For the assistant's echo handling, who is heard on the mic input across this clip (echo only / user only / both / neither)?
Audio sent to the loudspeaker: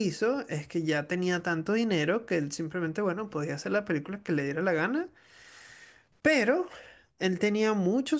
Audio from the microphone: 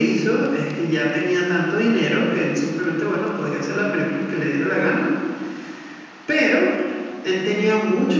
echo only